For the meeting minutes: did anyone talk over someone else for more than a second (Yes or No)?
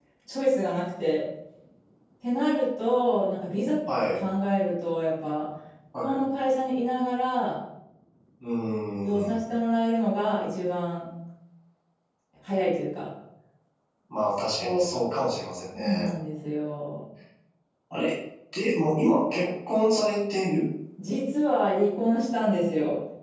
No